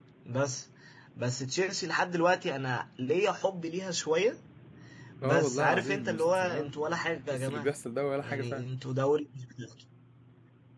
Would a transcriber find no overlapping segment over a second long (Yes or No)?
No